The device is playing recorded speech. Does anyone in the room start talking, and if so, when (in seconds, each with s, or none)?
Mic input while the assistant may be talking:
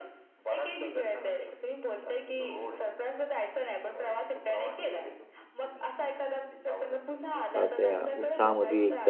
7.5 s